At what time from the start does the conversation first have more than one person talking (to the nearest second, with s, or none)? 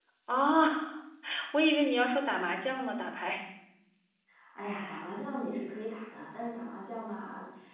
none